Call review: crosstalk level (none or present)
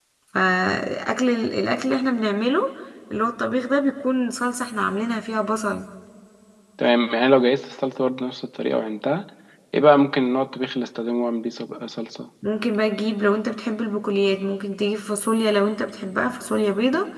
none